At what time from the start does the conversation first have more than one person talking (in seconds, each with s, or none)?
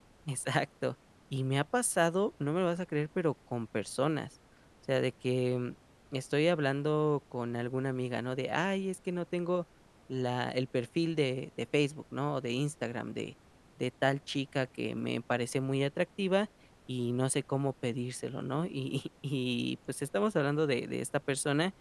none